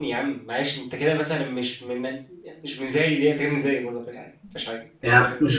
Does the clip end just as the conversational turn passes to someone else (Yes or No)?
Yes